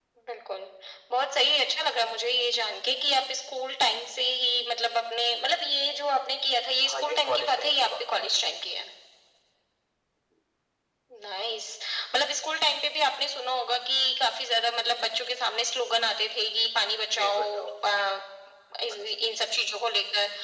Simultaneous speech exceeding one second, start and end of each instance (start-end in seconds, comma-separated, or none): 6.9-8.2